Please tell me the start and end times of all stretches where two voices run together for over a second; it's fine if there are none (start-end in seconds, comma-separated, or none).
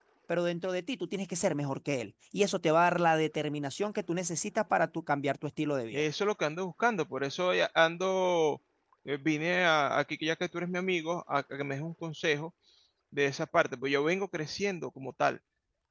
none